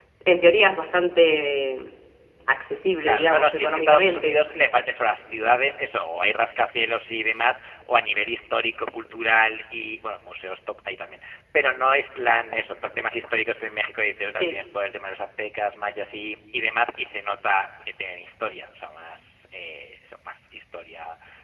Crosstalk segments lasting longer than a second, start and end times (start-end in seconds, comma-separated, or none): 3.0-4.4